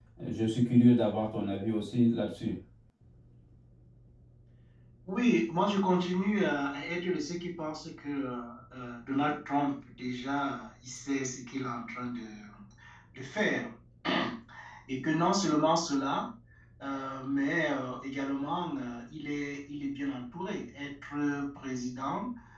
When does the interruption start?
none

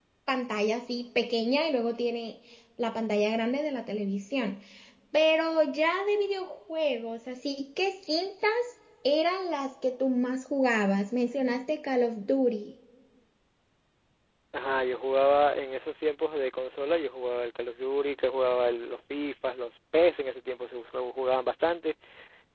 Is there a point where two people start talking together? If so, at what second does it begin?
none

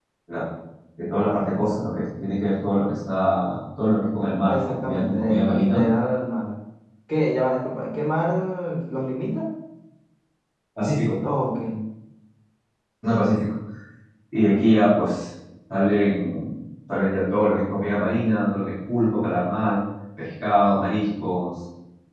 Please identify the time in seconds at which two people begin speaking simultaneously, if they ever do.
4.5 s

